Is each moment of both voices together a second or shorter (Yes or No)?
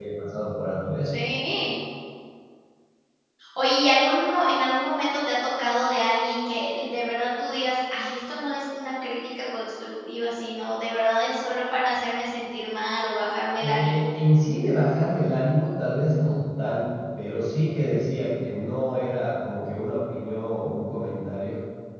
Yes